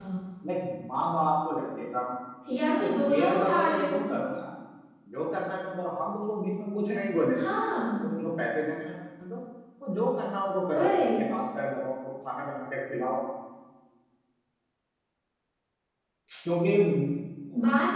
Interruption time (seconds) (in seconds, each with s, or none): 2.7 s